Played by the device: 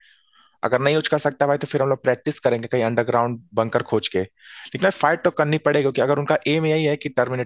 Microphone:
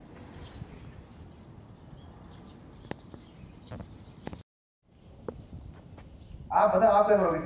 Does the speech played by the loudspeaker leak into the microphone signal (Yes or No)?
No